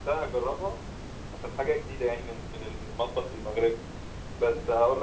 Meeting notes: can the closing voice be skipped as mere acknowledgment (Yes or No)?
Yes